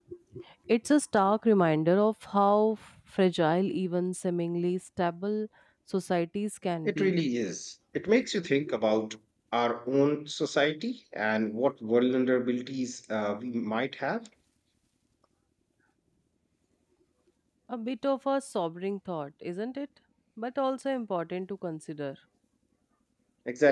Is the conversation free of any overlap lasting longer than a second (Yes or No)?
Yes